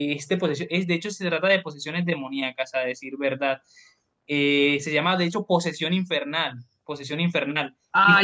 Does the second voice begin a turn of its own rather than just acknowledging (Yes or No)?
Yes